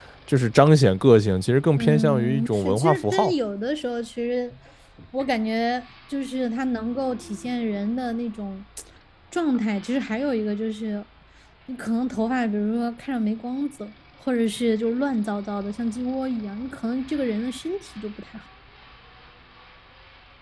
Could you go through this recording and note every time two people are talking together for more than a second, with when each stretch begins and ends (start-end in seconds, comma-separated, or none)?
1.7-3.3